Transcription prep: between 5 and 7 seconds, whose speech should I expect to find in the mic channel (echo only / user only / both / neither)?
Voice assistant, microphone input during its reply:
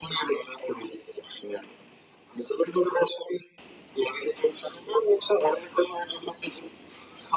echo only